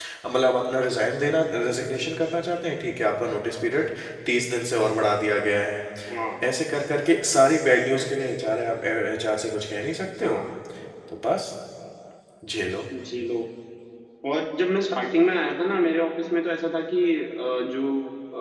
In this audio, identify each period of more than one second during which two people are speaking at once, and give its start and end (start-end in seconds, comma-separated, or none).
none